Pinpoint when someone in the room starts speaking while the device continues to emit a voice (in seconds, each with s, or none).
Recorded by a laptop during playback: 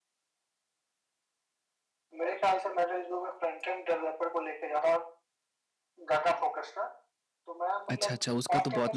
7.9 s